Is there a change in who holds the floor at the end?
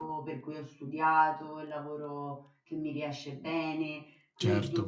No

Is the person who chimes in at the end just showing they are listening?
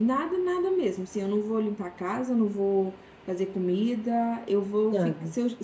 Yes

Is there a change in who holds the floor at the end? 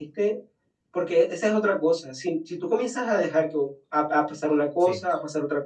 No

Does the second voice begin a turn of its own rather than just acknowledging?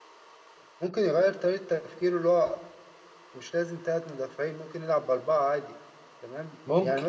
No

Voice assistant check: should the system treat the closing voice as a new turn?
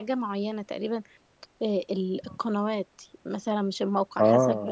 No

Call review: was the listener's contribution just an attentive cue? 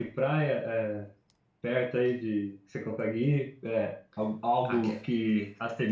Yes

